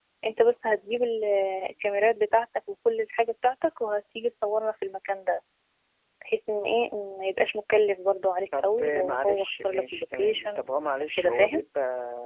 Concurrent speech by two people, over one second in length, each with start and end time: 8.5-11.6

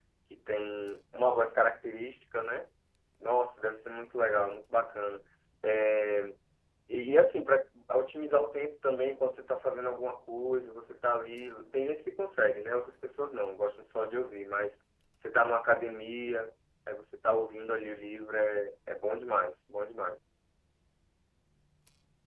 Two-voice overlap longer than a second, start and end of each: none

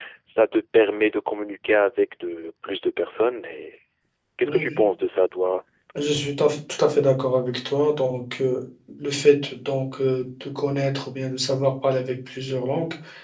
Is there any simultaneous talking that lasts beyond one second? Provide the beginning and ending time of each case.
none

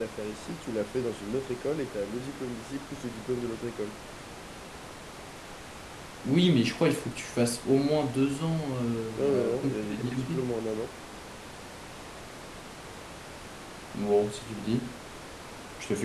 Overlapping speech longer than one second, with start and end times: 9.2-10.5

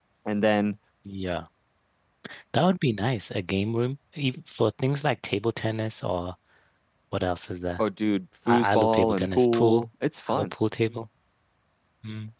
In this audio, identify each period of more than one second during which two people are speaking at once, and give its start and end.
8.5-9.8

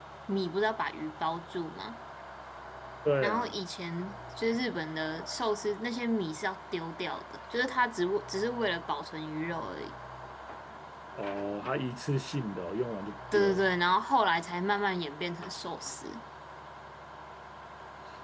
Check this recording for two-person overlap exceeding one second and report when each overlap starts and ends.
none

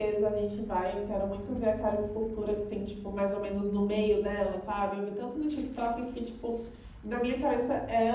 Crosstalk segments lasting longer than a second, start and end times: none

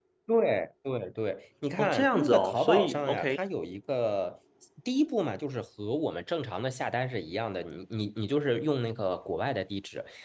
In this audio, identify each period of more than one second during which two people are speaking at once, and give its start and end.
1.8-3.4

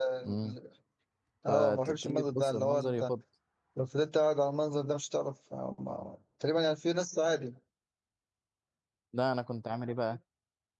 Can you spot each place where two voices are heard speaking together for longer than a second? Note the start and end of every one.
1.5-3.1

